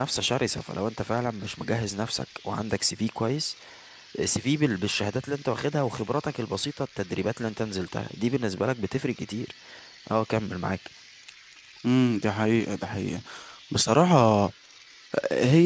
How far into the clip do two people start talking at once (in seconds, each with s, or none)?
none